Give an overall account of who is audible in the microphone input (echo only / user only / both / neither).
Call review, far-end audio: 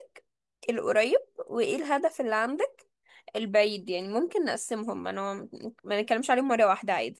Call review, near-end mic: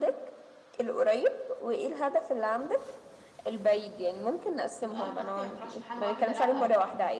both